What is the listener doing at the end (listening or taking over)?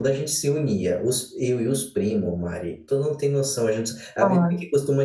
listening